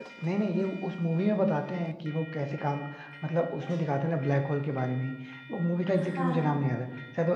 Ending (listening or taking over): listening